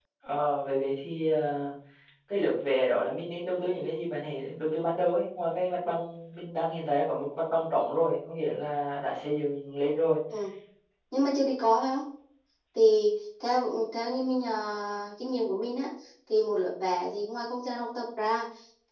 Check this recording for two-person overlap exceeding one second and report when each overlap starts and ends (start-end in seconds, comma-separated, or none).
none